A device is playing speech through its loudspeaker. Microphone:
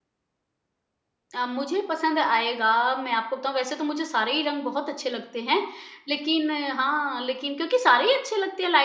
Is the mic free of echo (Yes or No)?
Yes